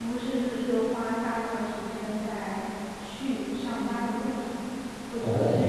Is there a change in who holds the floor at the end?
No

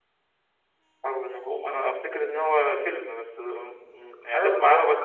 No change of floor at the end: No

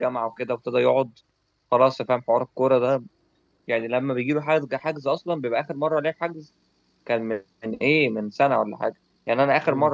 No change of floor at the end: Yes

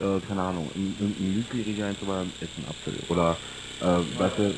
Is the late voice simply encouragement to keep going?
Yes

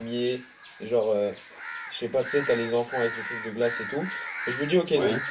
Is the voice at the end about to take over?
No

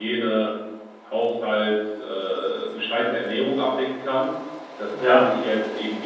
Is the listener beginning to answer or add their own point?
No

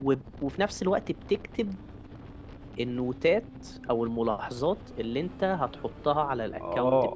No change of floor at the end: No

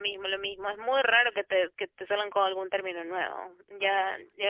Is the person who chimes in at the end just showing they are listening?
Yes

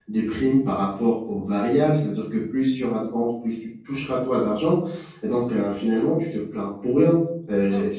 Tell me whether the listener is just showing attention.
No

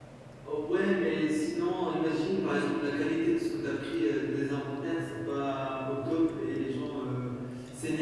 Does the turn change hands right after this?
No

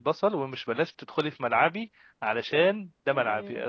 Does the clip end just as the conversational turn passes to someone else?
No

